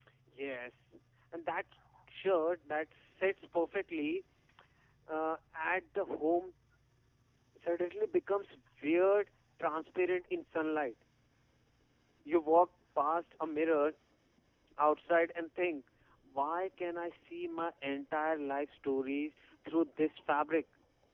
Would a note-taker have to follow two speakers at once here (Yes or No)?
No